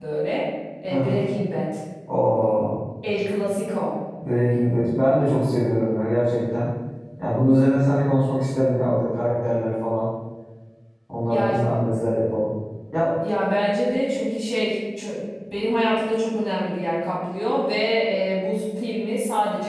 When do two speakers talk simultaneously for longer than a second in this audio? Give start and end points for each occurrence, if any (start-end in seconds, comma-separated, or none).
none